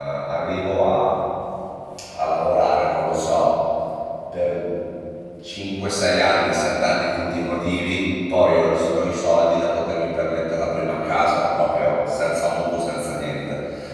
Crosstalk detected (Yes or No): No